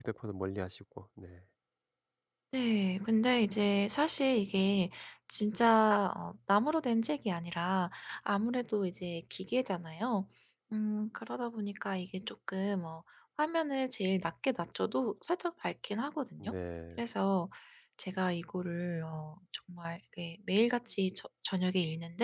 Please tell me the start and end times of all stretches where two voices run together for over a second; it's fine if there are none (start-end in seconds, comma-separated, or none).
none